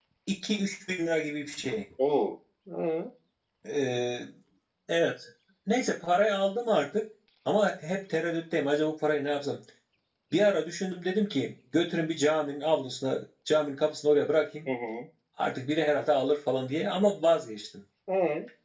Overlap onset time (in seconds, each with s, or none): none